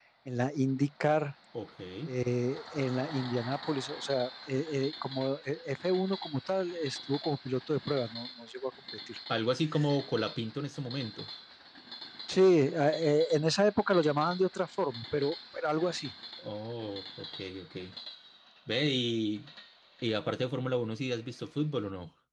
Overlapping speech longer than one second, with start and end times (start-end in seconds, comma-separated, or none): none